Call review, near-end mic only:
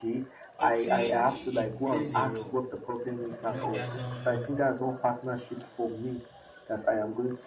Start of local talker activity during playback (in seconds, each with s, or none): 0.6 s